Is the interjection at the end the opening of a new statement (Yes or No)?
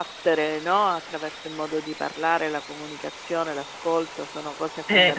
No